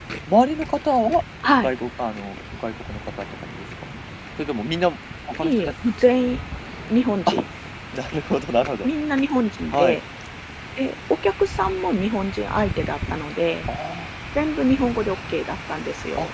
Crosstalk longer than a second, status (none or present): none